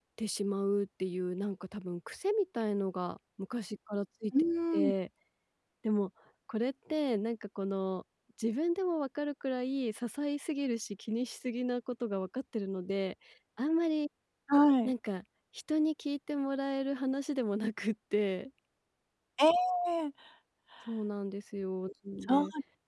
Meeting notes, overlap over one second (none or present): none